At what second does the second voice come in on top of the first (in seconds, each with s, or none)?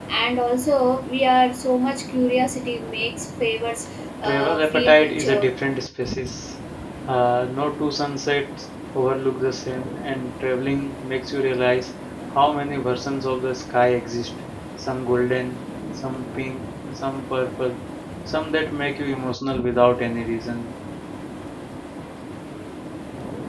4.2 s